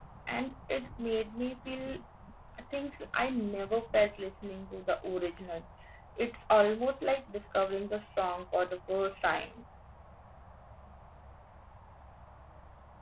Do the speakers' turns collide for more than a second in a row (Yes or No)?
No